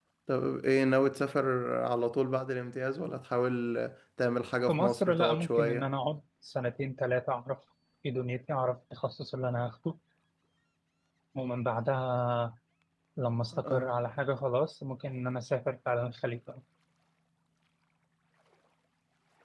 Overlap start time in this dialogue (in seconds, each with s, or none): 4.7 s